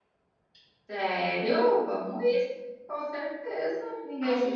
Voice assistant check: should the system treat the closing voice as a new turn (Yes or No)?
Yes